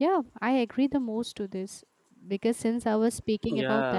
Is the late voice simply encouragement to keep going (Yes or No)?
Yes